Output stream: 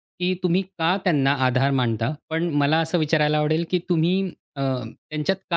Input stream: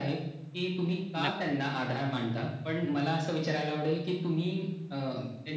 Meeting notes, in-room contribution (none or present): present